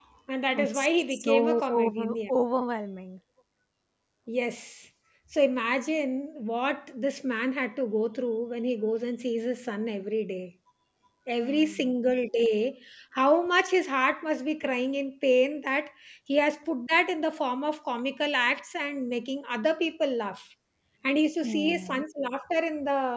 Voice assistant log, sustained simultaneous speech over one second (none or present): present